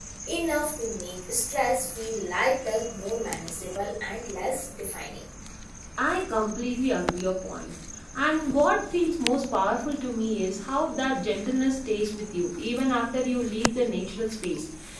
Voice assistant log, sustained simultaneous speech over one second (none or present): none